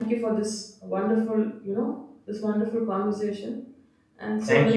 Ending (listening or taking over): taking over